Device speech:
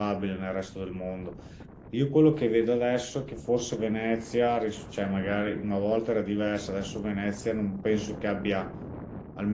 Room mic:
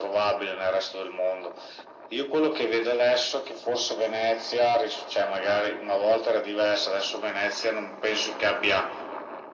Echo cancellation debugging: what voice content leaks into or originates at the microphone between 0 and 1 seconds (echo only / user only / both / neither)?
echo only